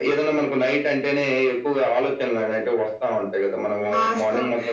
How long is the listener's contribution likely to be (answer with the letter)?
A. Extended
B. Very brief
A